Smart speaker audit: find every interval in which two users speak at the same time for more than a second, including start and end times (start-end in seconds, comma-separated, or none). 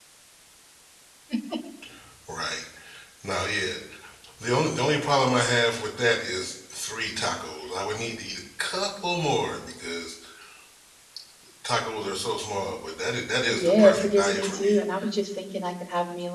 13.5-14.8